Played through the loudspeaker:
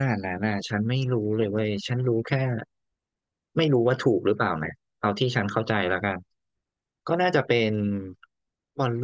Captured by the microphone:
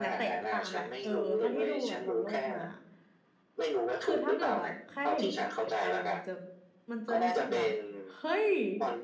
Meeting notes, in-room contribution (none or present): present